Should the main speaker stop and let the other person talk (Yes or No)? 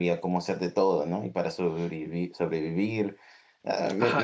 Yes